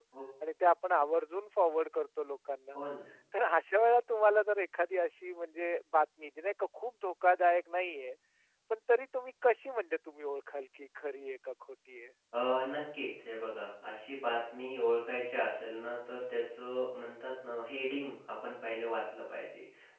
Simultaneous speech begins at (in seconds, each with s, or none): none